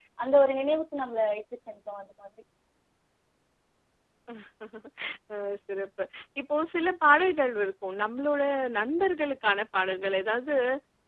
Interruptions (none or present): none